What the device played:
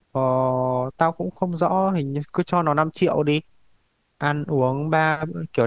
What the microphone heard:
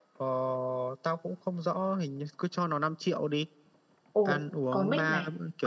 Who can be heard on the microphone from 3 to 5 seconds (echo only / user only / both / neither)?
both